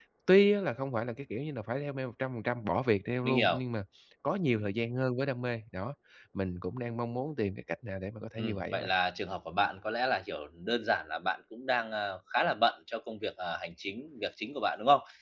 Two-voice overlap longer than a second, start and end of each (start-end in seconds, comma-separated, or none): none